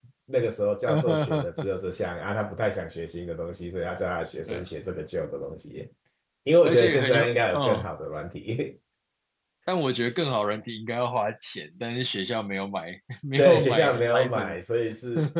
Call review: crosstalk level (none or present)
present